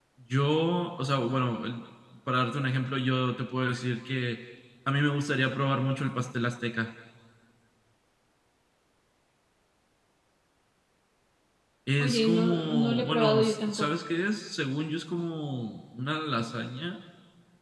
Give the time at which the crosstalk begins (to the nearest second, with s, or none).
12 s